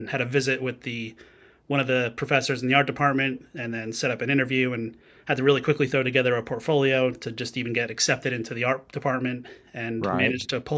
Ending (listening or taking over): listening